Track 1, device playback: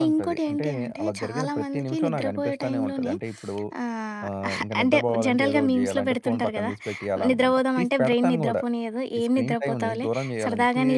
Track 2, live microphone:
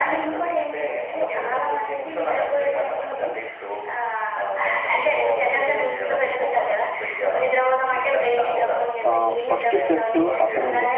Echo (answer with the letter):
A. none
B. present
B